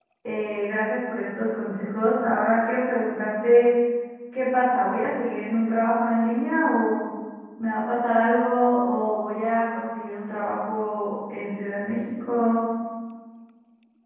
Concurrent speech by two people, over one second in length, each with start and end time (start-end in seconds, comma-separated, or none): none